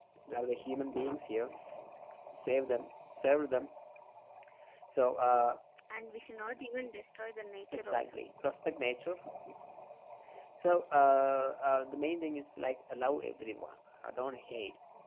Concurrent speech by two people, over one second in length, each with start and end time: none

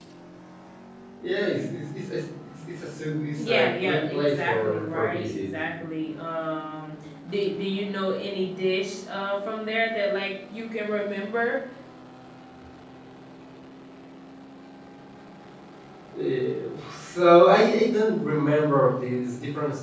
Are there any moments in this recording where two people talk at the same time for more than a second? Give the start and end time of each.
3.4-5.5

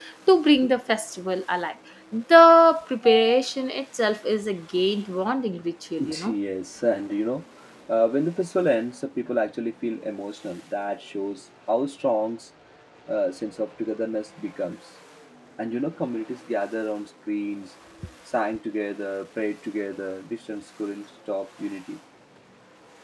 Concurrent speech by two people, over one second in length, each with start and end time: none

